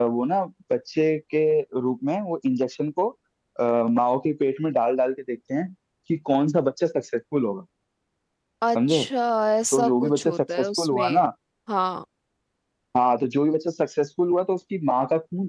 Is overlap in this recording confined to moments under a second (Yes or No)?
No